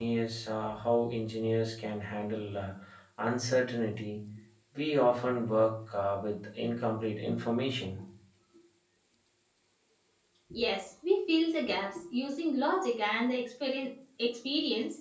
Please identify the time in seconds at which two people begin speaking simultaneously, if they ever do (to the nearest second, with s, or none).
none